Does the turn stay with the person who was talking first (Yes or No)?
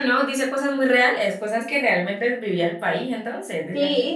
No